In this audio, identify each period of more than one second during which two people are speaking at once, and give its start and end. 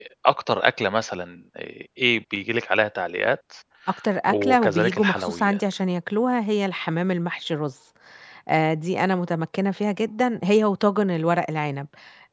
4.3-5.6

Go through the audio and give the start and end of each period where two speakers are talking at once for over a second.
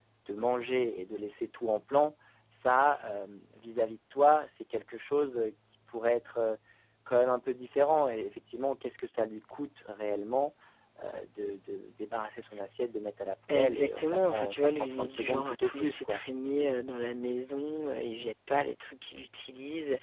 13.5-16.2

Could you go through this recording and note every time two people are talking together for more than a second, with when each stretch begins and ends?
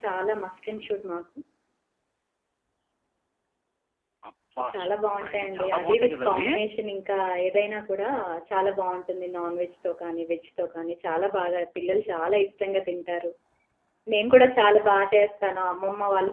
4.7-6.5

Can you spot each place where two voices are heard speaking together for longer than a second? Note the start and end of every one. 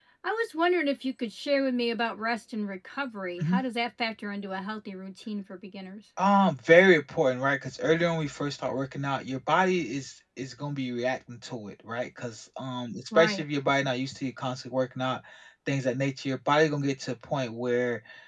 none

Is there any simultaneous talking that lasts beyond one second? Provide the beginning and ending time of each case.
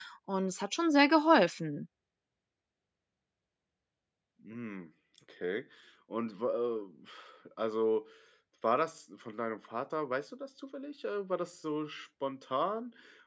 none

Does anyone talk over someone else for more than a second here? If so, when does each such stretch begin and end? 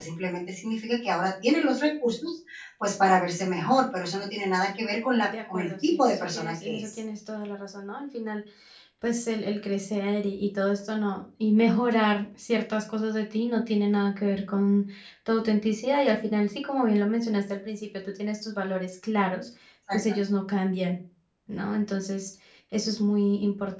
5.2-7.0

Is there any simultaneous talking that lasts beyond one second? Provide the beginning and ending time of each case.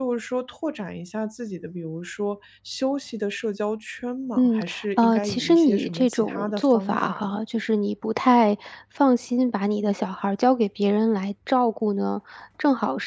4.4-7.3

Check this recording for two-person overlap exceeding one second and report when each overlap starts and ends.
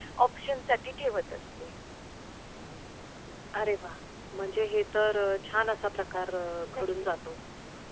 none

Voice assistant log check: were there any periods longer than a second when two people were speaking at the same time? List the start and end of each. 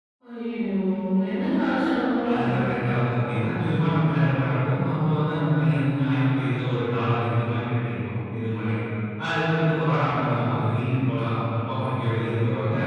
none

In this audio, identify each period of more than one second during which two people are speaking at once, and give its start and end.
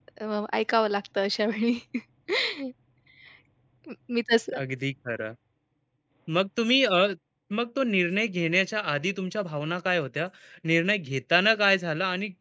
none

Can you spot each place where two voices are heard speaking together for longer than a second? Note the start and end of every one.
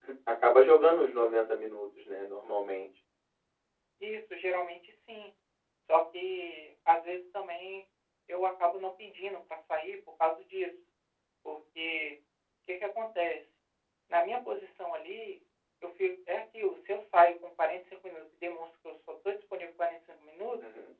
none

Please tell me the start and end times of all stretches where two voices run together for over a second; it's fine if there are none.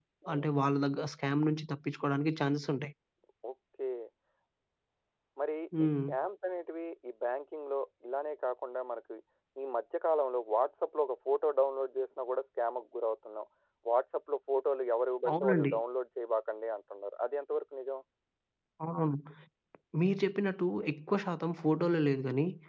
none

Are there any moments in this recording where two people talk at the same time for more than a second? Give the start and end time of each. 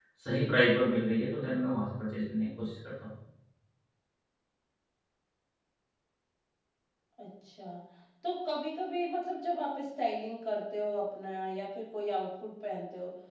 none

